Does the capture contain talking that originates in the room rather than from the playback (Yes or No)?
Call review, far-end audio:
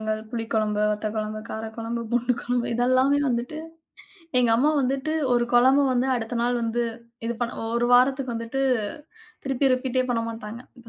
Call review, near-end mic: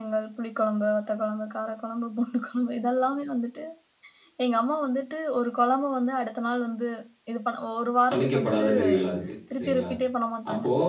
Yes